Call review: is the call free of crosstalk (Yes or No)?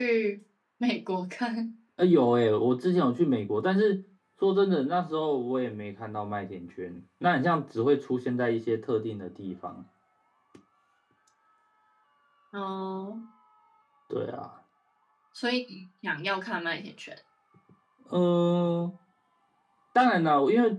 Yes